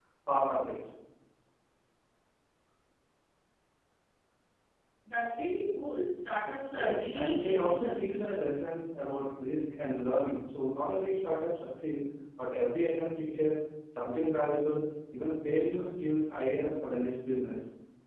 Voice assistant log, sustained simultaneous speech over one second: present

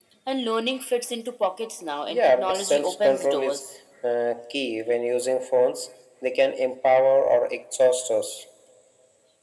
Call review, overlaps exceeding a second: present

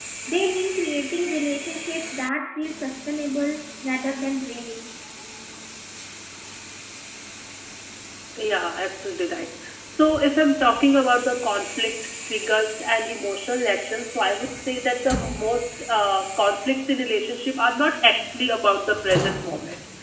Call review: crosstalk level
none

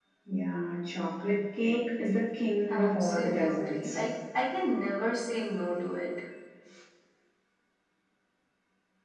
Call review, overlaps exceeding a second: present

